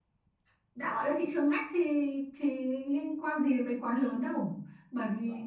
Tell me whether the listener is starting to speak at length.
No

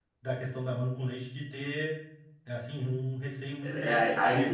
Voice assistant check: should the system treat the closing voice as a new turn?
Yes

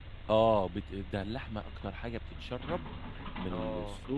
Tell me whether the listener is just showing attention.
Yes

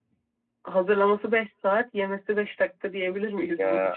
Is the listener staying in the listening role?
No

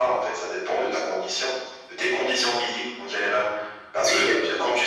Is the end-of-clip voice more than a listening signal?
No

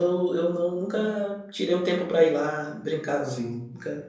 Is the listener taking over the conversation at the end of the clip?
Yes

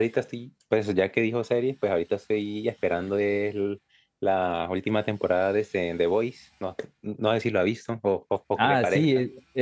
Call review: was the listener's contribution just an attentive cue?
No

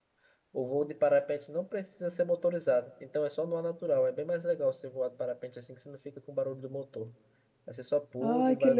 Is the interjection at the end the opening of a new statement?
Yes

